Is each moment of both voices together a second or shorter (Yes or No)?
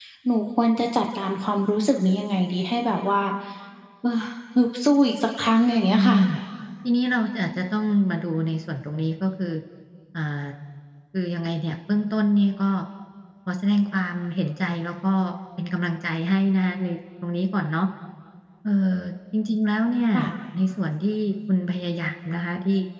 Yes